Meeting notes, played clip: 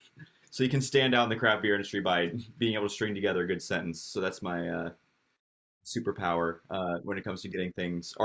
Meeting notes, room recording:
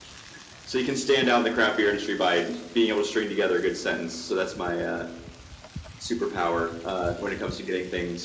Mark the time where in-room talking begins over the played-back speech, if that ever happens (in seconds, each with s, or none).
none